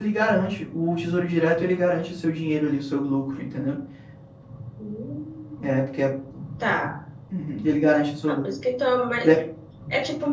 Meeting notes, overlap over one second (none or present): none